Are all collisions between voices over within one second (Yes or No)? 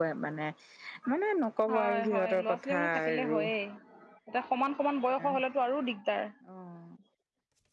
No